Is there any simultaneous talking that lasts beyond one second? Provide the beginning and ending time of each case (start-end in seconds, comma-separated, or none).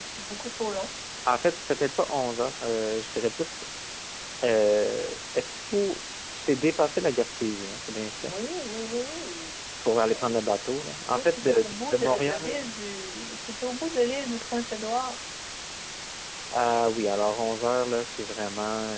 11.1-12.6